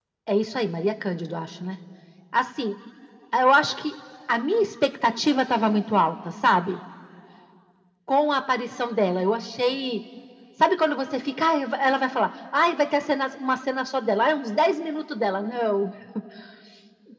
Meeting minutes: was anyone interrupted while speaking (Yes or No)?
No